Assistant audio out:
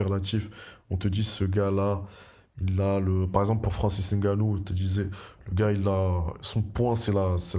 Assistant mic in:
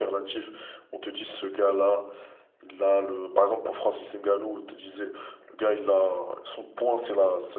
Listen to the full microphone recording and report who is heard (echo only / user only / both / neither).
echo only